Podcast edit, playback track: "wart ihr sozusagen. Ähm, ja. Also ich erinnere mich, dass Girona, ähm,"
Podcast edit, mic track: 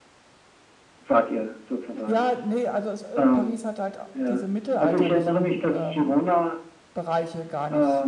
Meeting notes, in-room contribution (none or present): present